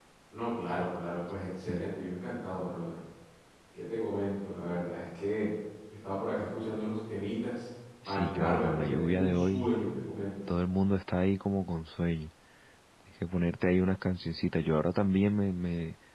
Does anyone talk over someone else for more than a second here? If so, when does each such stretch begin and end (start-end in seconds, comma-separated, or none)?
8.0-9.7